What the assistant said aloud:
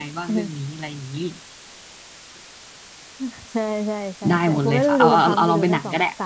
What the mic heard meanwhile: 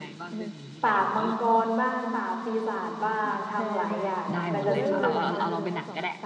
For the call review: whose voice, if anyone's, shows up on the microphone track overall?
both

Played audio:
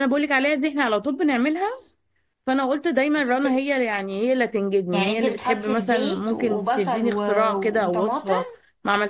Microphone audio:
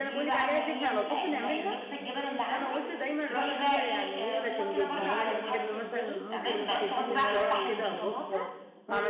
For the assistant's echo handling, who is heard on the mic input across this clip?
both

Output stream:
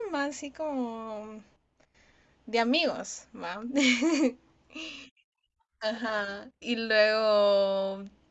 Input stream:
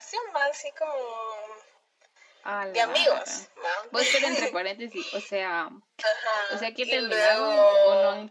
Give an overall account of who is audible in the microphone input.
both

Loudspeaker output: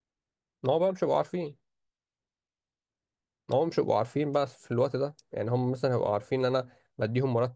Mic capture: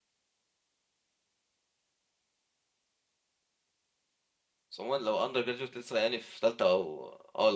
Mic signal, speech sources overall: user only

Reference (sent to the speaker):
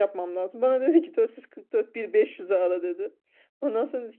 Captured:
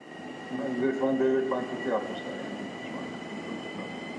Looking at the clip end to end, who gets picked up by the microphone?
user only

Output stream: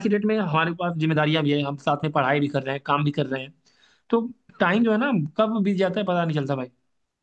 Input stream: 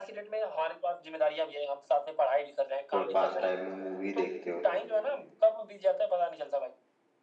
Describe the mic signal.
both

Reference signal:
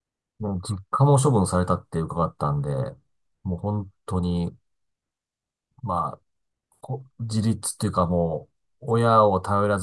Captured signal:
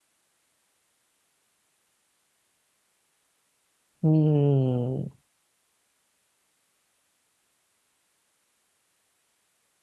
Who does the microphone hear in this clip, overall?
user only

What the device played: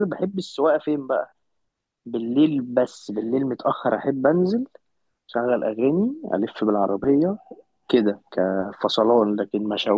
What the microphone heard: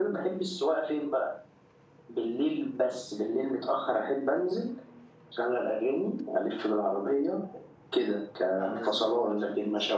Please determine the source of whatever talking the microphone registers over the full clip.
both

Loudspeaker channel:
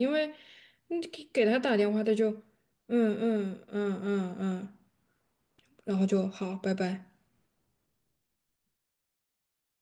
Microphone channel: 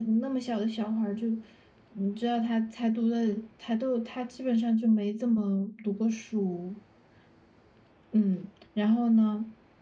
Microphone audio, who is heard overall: user only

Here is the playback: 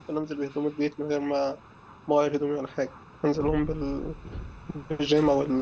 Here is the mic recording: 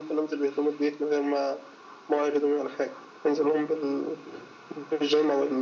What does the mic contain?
echo only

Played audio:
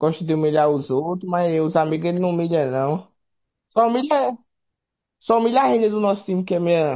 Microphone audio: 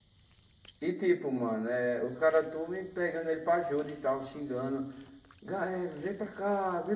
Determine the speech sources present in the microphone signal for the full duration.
user only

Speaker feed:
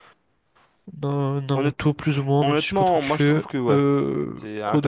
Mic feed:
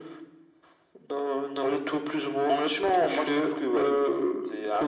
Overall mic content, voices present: echo only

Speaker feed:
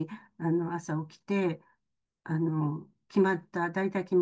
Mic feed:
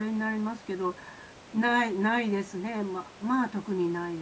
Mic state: user only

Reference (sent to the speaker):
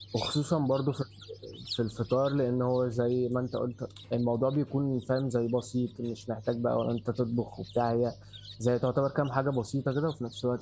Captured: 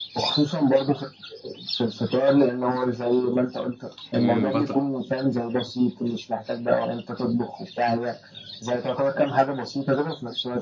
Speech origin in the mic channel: both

